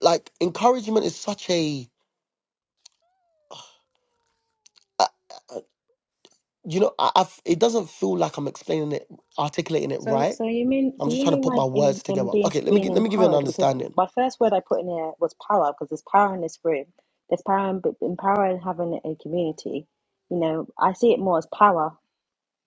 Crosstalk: present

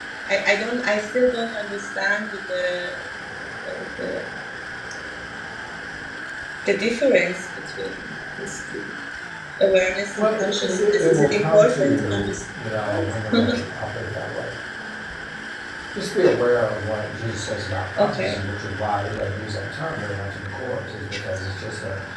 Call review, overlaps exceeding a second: present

